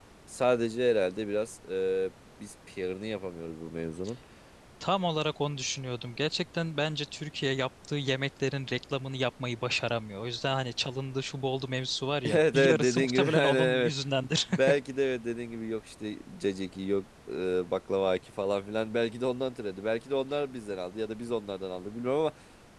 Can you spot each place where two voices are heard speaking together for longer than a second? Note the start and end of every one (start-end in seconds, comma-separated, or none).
12.2-13.9